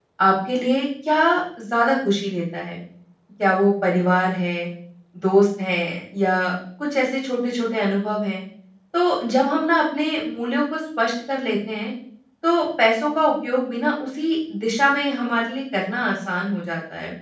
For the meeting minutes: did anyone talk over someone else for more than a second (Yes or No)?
No